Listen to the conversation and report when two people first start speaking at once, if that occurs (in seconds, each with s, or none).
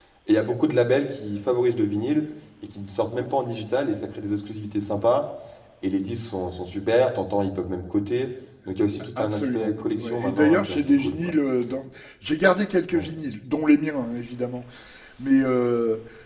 9.2 s